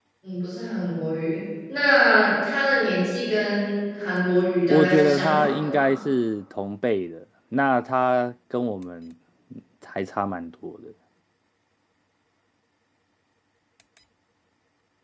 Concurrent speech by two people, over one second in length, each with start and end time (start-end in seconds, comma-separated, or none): 4.7-5.9